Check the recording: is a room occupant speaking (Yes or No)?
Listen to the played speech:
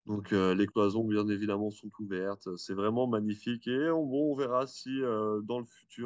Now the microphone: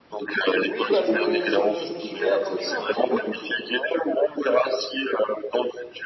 Yes